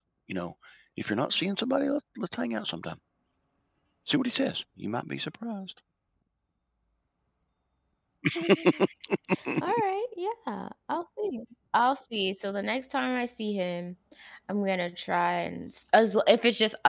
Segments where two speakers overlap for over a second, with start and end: none

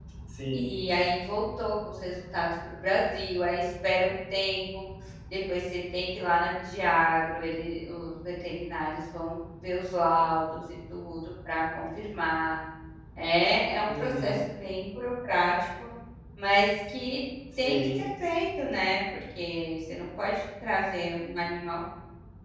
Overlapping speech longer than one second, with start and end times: none

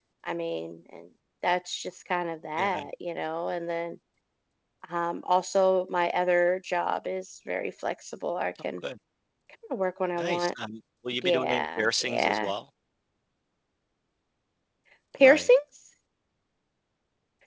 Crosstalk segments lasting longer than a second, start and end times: 11.2-12.5

